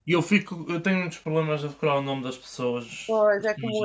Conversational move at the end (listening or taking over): taking over